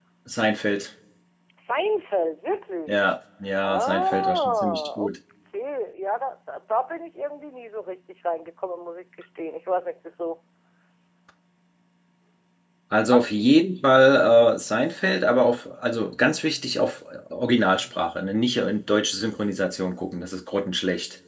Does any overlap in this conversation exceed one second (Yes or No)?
Yes